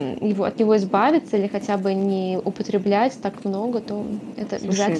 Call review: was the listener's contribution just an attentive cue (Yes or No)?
No